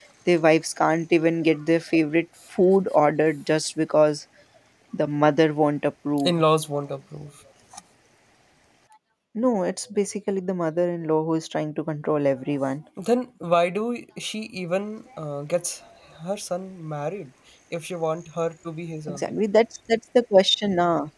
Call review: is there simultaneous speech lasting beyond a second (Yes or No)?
No